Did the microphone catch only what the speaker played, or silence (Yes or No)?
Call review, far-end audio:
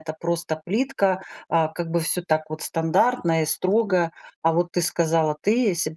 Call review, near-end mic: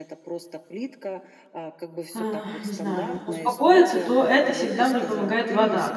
No